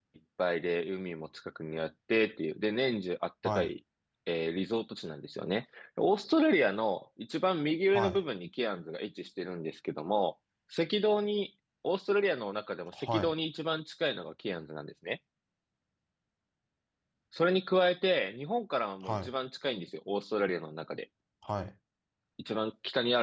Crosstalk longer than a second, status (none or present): none